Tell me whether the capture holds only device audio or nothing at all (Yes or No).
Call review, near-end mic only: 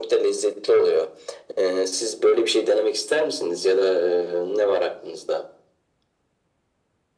Yes